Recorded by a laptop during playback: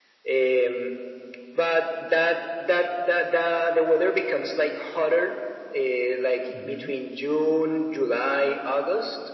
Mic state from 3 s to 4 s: echo only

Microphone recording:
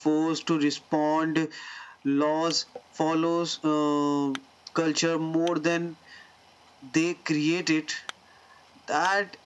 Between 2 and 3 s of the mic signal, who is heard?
echo only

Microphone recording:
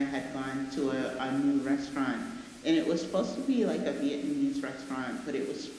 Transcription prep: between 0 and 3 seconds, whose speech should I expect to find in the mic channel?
echo only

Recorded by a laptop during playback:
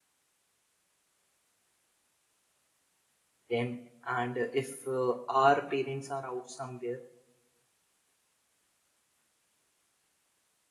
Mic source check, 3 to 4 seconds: user only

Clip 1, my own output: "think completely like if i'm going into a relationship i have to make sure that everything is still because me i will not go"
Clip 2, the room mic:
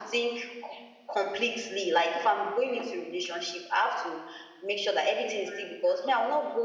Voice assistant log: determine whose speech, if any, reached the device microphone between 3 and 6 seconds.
echo only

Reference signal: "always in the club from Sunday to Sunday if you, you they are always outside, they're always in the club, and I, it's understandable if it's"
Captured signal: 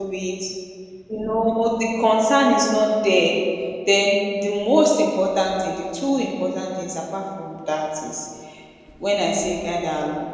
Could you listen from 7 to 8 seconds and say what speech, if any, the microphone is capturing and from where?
user only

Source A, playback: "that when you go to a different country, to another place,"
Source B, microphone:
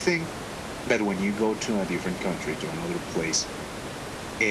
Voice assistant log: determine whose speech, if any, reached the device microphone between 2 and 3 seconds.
echo only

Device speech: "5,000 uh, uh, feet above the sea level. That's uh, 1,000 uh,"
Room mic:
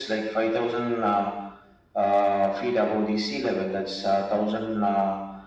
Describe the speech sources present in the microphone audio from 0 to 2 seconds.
echo only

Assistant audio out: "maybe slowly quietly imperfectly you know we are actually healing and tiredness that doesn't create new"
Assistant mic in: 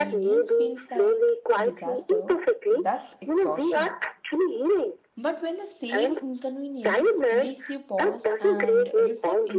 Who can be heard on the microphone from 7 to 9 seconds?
both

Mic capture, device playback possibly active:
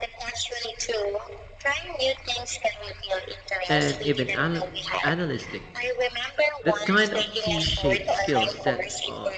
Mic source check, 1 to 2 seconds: echo only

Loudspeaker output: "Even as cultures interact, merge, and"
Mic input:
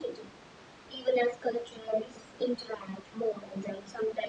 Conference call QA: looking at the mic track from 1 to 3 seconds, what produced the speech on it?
echo only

